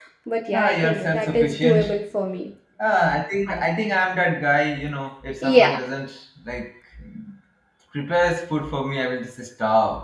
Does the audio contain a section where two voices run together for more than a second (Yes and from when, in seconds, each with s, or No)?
Yes, from 0.5 s